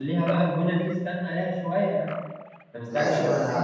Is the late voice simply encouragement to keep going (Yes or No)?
No